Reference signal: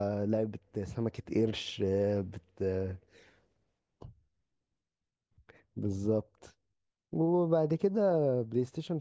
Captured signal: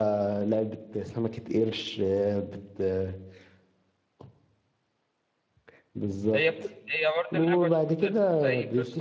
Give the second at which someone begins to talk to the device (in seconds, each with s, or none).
6.3 s